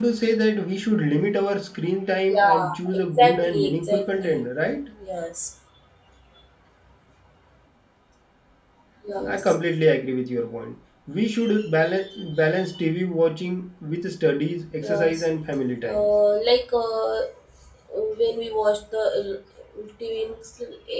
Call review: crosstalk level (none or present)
present